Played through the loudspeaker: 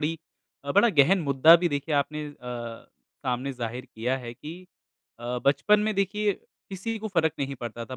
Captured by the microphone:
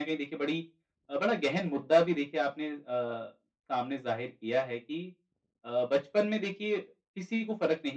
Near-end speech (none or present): none